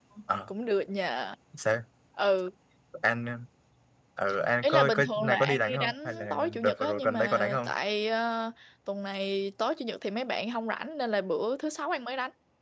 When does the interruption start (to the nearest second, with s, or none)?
5 s